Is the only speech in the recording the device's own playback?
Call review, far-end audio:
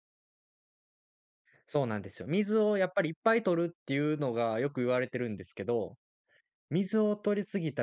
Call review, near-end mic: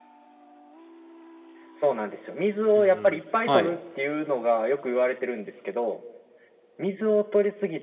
No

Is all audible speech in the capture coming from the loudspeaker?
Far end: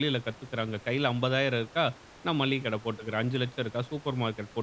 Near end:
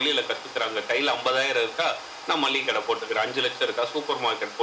Yes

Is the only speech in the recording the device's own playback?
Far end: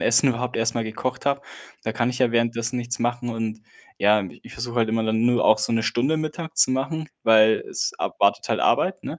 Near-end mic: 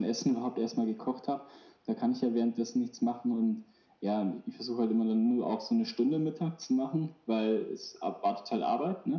Yes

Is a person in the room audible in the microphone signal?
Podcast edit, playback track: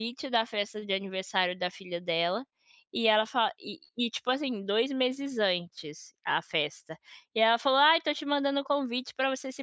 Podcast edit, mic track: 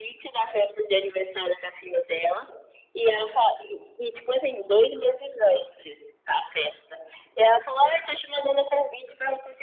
No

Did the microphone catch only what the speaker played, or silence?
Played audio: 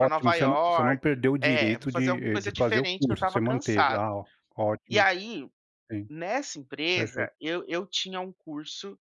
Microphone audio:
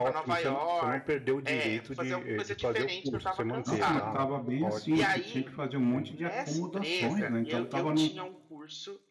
No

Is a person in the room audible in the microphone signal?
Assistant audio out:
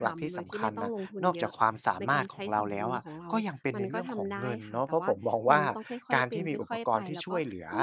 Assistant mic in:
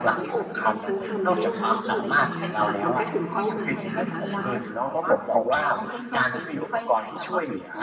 Yes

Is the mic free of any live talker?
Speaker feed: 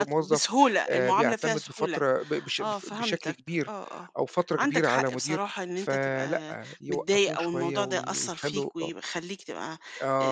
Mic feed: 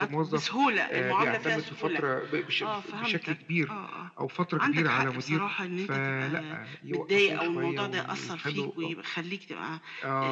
Yes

